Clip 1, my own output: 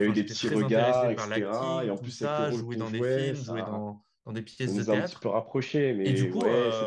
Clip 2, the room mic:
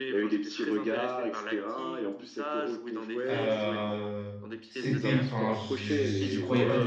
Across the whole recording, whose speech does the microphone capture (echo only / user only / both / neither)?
both